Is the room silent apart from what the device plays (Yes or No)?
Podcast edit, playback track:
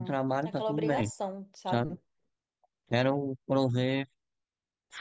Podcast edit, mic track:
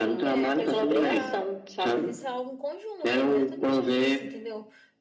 No